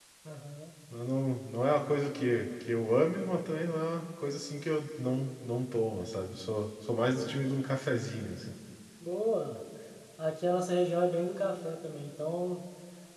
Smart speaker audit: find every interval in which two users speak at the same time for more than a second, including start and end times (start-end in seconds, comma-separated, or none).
none